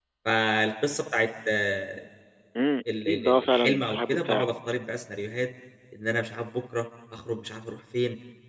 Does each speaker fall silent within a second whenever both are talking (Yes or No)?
No